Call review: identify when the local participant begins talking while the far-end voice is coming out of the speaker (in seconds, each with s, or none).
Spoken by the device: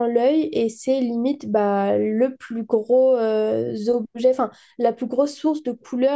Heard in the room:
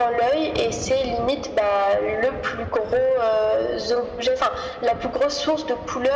none